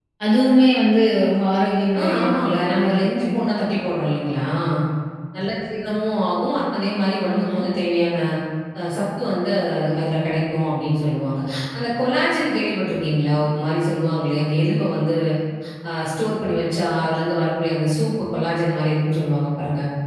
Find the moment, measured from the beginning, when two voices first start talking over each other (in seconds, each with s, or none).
2.0 s